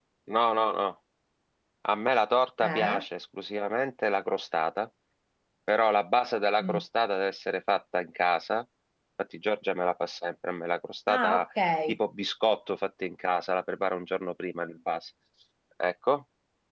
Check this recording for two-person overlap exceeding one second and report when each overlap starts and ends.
none

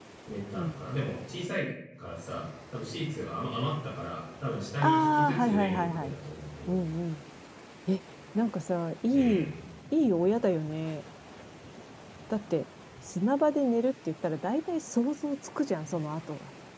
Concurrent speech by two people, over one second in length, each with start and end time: 4.8-6.1

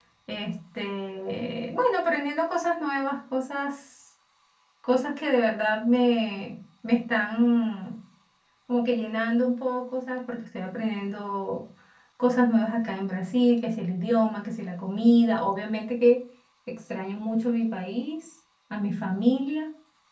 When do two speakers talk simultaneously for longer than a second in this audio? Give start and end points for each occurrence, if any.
none

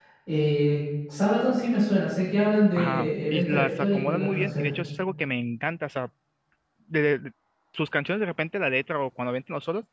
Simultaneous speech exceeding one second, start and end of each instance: 2.8-4.7

